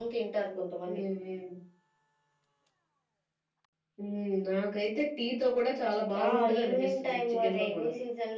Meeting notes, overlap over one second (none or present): present